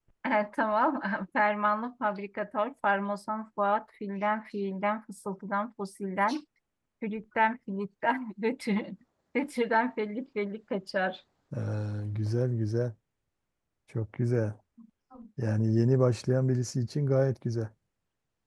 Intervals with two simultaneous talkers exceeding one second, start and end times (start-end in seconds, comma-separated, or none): none